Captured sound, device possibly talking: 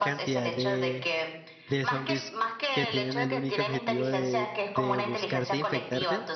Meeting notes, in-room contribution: present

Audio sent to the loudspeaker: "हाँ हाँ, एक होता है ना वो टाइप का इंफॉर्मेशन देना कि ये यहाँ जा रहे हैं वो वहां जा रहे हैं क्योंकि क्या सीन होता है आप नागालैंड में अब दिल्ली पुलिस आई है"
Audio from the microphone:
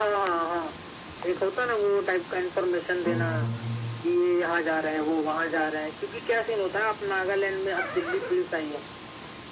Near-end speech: present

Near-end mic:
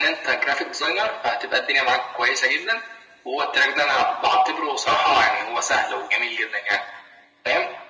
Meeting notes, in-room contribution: none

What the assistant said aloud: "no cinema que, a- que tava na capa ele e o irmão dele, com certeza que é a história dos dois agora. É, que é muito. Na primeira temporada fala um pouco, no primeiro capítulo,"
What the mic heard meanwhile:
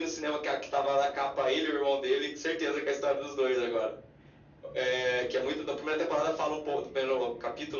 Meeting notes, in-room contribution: none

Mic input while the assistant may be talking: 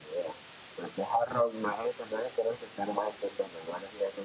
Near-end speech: none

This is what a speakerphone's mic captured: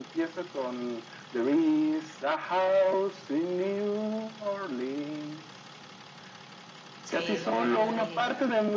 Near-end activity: present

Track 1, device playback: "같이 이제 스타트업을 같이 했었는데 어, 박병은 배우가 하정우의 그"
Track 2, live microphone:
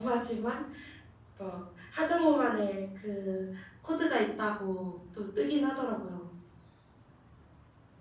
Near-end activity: present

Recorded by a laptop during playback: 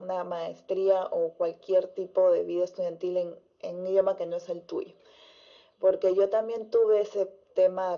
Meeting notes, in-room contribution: none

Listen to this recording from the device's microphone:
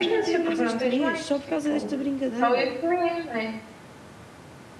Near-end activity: present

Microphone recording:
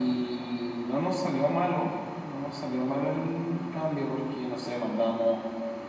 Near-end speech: none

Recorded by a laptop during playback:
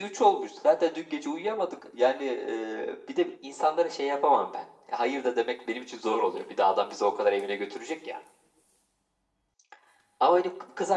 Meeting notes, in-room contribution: none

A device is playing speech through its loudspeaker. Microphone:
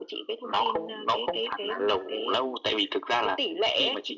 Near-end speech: none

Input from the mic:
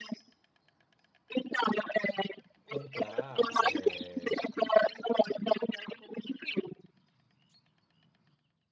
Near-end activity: present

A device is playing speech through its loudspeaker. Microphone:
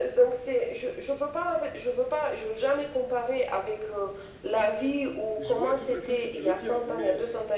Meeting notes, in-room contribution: present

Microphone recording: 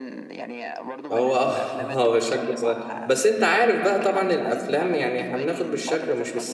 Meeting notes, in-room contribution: present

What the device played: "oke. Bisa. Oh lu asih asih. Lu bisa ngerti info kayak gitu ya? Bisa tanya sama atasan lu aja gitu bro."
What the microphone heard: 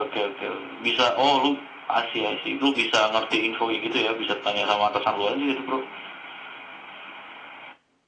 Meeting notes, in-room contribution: none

